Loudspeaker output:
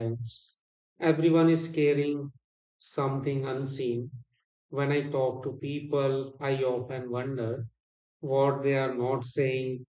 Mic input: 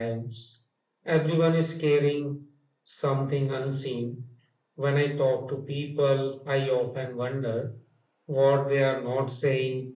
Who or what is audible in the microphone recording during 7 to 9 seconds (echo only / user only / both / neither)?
echo only